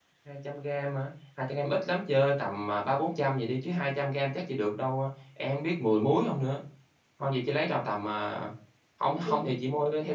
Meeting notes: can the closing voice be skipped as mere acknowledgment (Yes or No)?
Yes